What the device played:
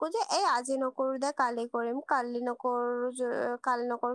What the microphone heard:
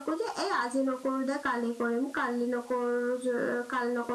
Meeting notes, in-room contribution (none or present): none